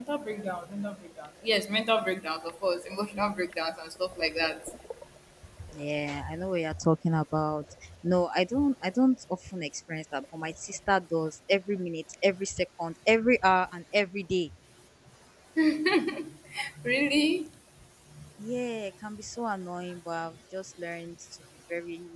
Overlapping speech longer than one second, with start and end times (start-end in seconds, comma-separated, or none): none